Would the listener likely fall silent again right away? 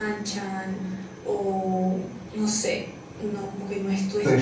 No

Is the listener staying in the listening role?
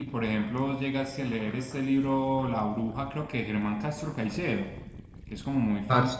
Yes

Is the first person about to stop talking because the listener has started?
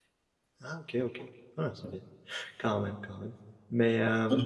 Yes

